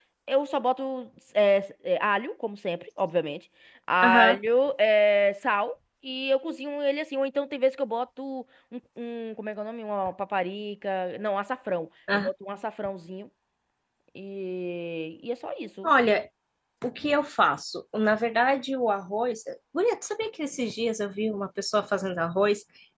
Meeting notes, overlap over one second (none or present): none